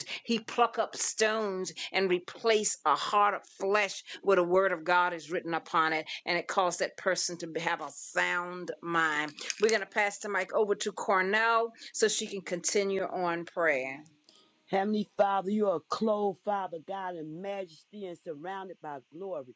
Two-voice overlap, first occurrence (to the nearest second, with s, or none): none